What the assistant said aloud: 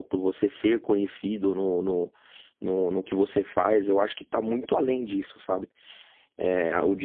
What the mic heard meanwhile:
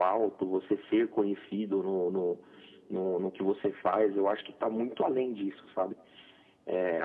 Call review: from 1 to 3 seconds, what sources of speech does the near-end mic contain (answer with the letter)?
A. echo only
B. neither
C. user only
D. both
A